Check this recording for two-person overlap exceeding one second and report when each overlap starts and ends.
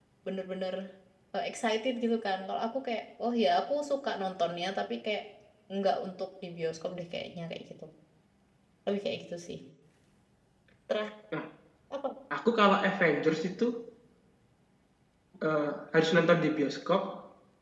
none

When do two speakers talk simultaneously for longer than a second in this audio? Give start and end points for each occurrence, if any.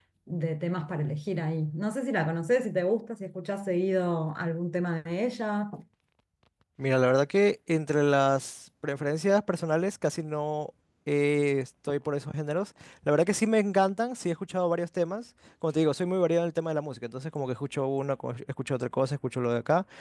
none

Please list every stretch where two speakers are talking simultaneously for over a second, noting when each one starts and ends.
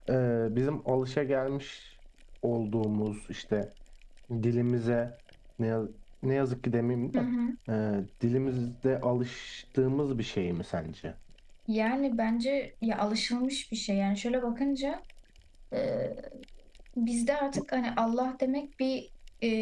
none

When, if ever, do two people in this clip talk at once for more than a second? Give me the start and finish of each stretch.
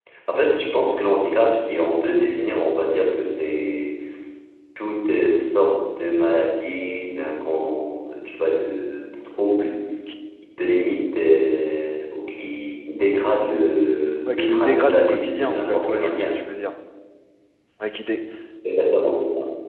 14.4-16.3

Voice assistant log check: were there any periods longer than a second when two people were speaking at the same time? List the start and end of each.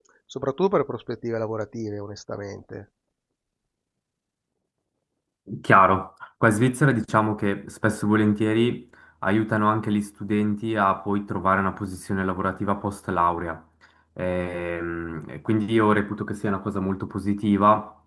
none

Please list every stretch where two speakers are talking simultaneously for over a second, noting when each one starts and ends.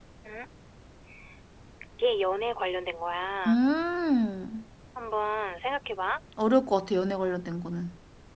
none

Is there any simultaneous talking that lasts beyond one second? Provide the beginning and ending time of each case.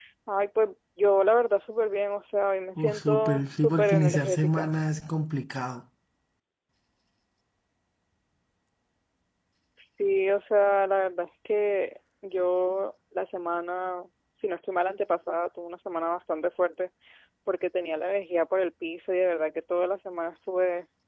2.8-4.7

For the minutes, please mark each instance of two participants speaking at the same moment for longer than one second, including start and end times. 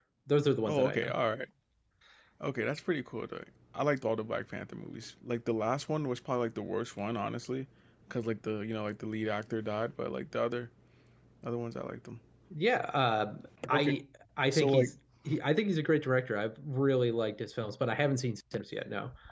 none

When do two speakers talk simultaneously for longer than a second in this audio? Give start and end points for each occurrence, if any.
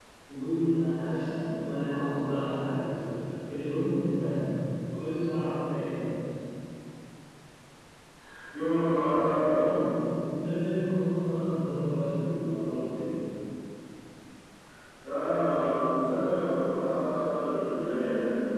none

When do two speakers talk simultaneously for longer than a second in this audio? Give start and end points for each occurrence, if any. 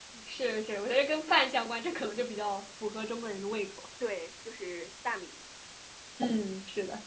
none

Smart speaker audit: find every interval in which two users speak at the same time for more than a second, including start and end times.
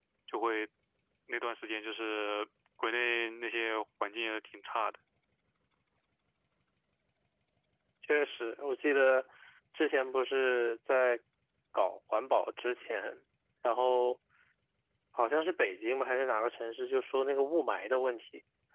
none

